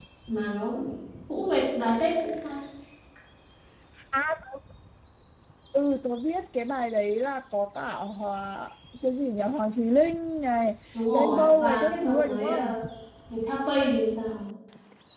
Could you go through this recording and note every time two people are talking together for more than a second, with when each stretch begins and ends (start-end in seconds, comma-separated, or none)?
11.1-12.7